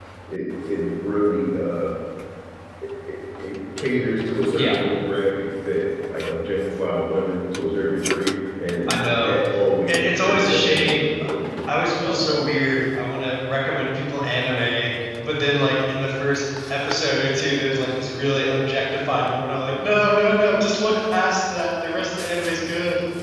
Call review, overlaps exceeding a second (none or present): present